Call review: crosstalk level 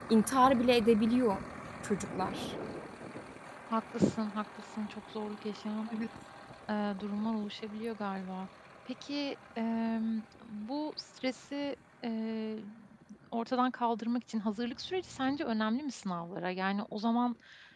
none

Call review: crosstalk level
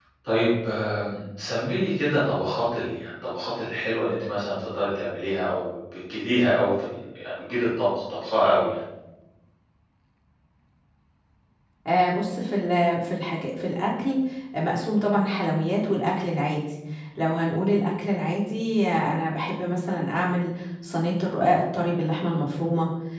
none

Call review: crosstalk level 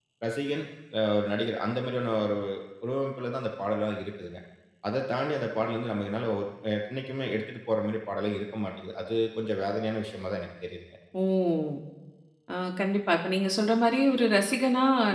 none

